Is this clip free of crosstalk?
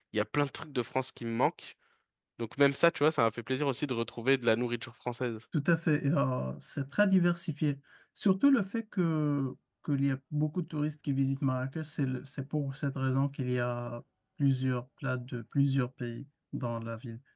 Yes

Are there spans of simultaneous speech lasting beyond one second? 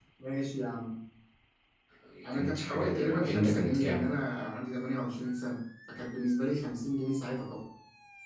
Yes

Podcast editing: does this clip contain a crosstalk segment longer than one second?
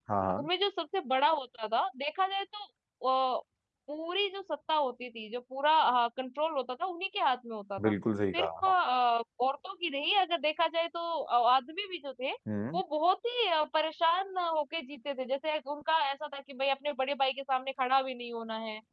No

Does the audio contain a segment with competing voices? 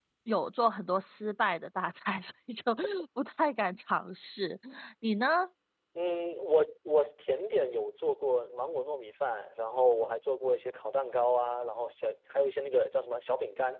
No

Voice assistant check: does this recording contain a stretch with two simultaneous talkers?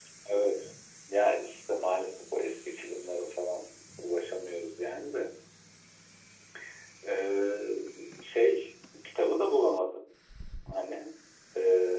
No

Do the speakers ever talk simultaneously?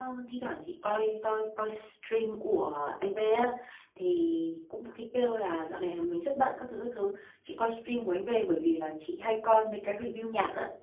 No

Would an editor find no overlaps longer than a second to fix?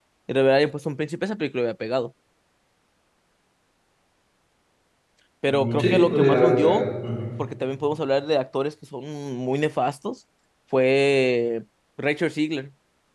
No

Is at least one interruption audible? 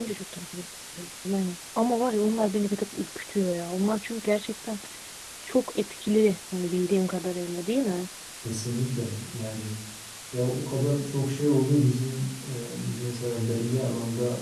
No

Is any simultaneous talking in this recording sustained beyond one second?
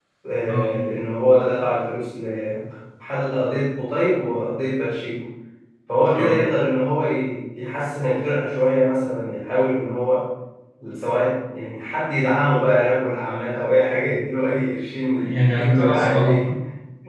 Yes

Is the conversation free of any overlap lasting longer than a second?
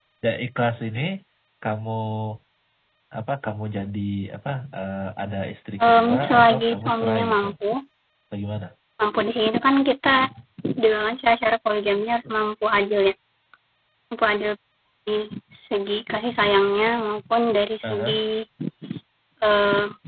No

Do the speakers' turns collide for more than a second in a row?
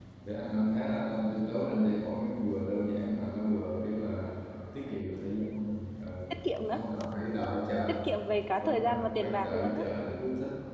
Yes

